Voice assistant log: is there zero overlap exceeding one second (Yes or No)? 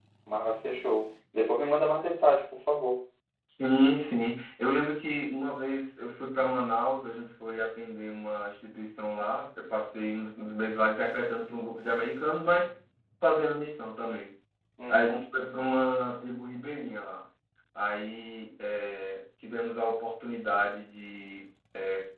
Yes